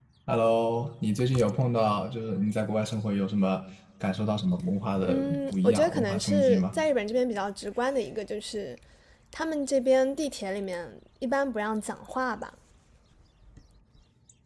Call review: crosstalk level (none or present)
present